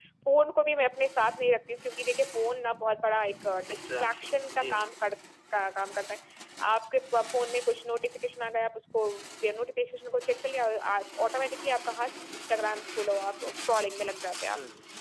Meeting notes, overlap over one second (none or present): present